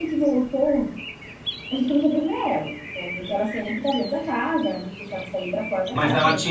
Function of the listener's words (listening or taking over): taking over